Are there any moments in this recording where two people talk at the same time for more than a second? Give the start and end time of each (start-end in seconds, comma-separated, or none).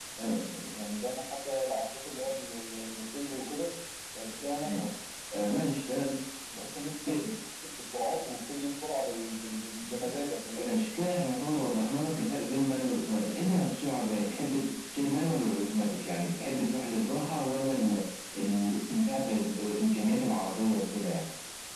none